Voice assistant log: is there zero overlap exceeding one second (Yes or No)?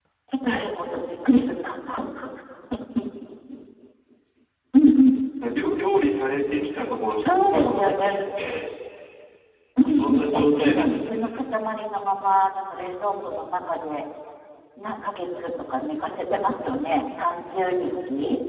No